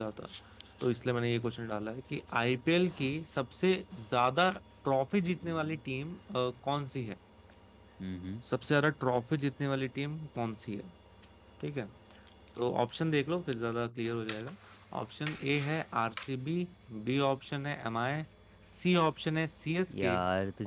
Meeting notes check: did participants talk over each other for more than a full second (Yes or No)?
No